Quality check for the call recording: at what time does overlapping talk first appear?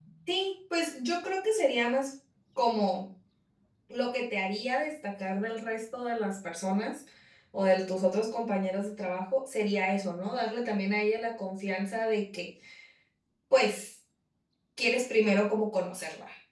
none

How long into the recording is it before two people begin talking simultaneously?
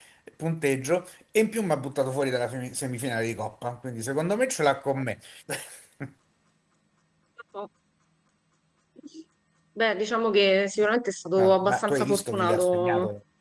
11.4 s

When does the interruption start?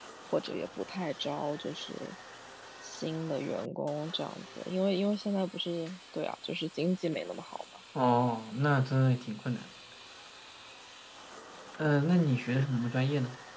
none

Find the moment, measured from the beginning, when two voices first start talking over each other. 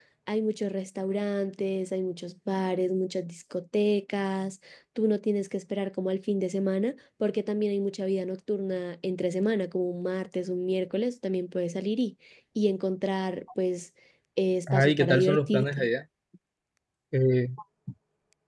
14.7 s

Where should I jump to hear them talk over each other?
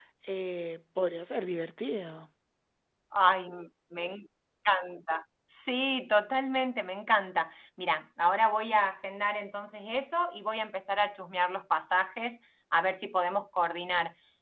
none

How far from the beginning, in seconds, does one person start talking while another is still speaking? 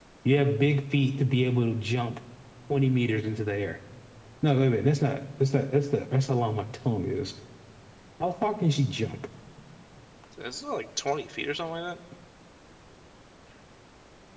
none

